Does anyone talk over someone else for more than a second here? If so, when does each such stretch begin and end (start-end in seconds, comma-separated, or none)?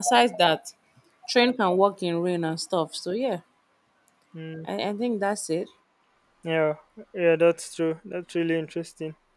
none